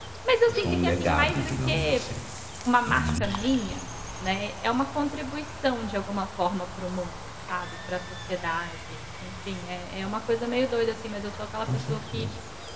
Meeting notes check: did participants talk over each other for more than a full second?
Yes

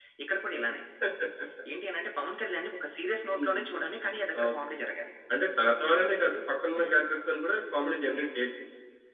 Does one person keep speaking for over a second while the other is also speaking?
No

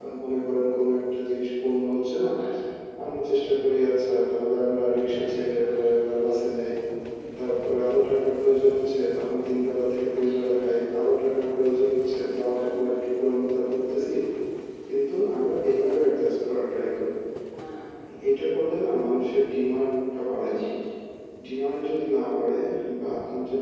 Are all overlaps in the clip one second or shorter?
Yes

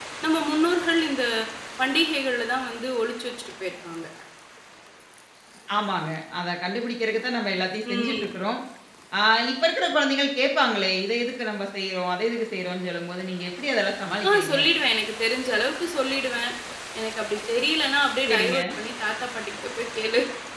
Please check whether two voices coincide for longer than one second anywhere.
No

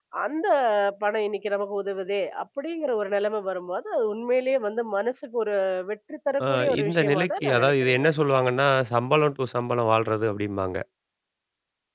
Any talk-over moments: Yes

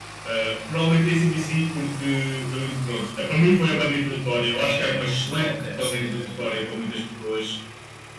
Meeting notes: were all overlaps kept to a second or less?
No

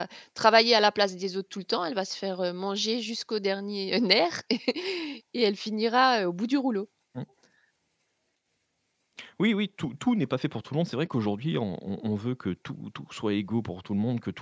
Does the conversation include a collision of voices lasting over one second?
No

